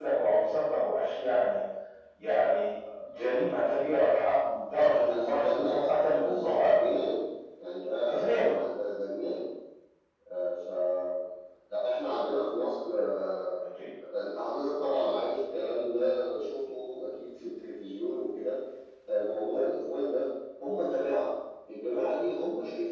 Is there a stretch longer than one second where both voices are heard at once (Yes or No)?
Yes